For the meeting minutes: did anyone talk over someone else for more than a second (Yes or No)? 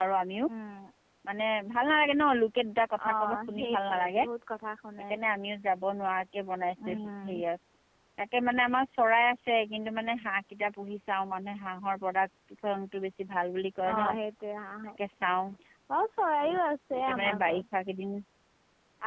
Yes